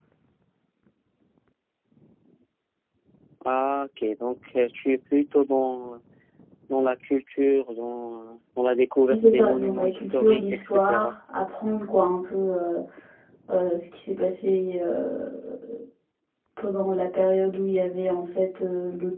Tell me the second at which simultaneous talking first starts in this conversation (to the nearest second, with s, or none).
9 s